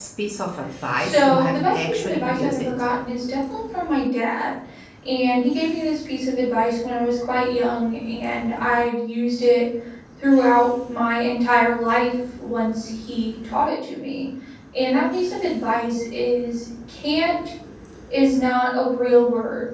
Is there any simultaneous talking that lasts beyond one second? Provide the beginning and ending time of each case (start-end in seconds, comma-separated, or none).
1.0-2.7